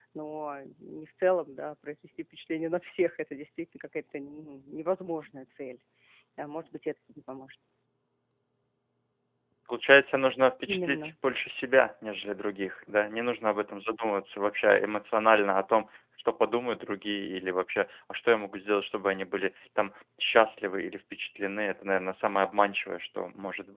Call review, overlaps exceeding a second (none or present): none